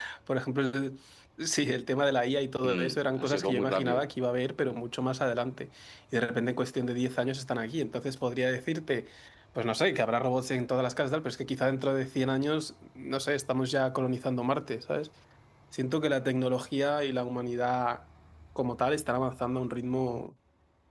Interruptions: present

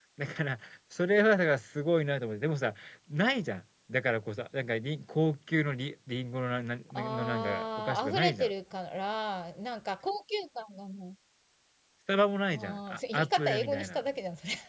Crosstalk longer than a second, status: present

